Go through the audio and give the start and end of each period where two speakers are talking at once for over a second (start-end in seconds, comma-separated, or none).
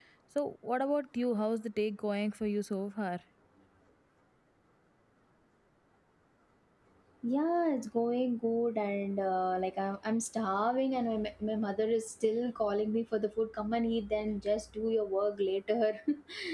none